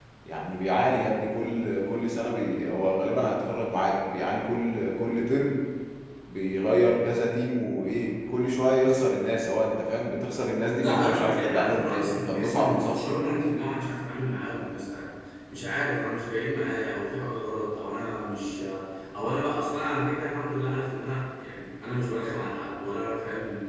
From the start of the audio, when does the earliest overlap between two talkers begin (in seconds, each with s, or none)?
10.8 s